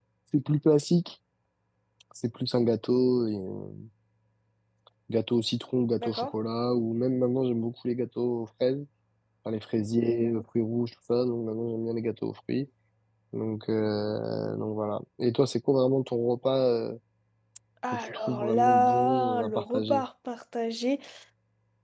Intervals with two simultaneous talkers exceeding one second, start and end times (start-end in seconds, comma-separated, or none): 17.9-20.0